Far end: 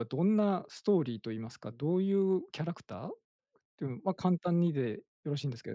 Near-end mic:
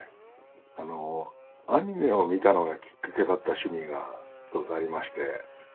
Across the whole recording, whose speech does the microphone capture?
user only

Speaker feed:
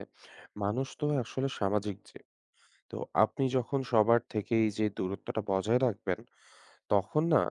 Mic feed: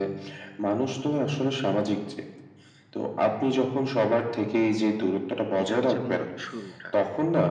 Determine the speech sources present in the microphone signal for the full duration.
both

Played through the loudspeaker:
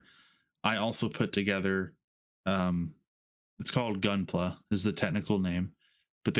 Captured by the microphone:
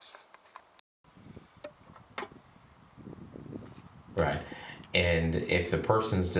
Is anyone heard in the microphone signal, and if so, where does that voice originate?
user only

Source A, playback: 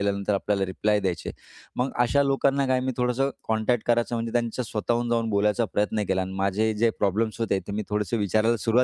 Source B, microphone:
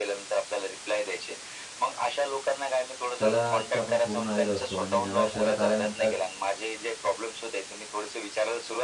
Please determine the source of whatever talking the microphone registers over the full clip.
both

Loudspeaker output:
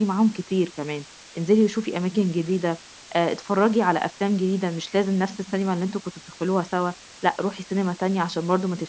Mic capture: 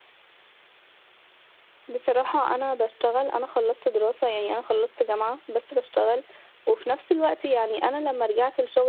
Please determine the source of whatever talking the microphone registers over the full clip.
user only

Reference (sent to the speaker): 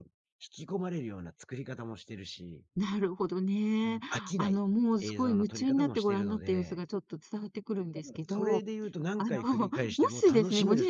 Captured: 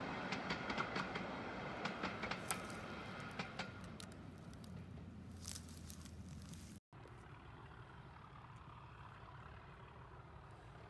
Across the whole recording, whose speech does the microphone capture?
neither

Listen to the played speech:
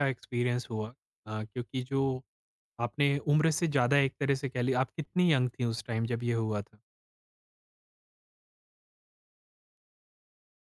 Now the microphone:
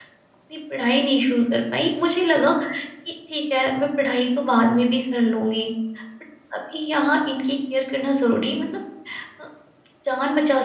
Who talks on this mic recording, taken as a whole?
user only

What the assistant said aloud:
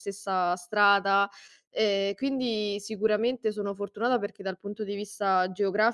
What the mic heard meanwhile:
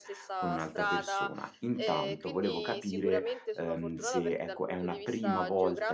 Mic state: both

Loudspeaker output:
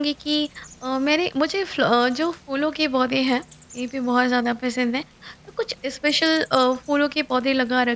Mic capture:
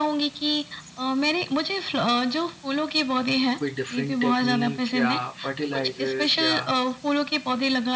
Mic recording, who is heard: both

